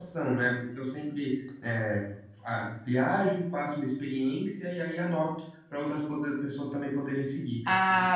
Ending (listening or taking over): taking over